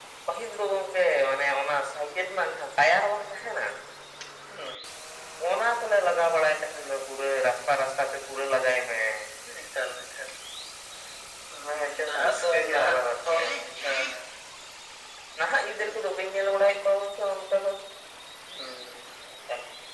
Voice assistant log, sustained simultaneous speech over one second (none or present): present